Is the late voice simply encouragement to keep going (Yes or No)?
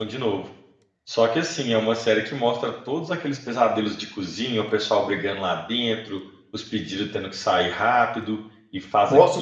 No